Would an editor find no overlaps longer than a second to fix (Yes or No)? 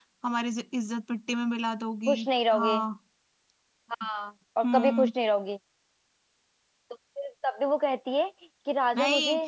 Yes